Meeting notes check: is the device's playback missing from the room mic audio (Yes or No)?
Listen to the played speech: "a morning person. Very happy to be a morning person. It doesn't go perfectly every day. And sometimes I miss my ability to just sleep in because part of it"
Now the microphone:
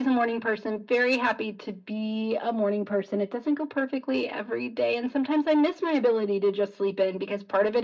No